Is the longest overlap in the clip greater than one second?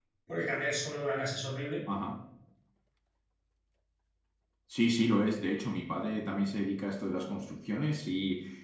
No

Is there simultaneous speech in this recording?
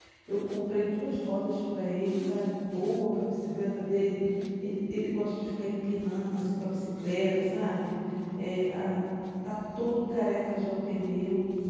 No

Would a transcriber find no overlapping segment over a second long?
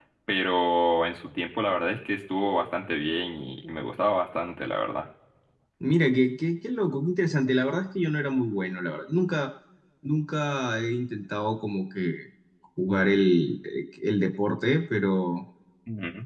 Yes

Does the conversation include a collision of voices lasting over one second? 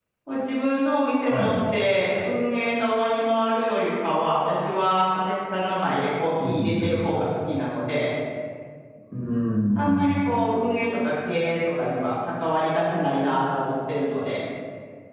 No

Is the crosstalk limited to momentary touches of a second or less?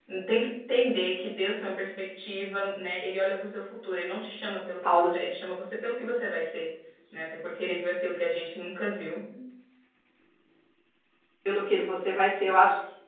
Yes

